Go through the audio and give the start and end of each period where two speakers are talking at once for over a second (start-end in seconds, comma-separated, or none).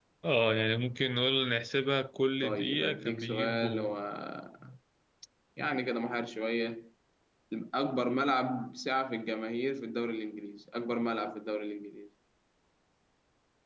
2.4-3.9